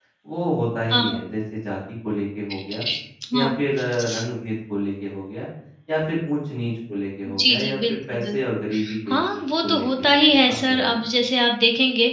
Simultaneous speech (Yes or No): Yes